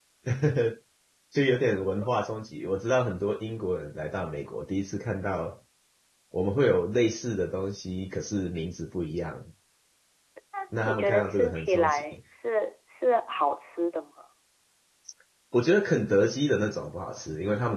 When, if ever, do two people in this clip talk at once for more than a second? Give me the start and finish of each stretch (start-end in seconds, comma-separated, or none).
10.8-12.2